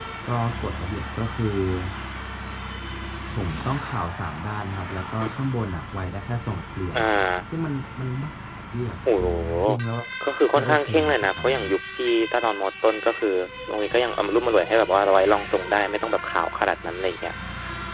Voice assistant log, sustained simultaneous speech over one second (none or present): present